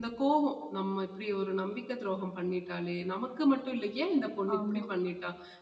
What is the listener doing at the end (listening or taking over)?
listening